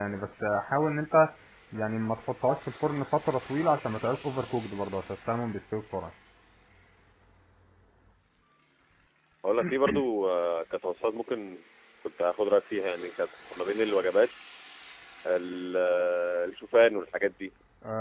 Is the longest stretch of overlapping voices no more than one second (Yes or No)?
Yes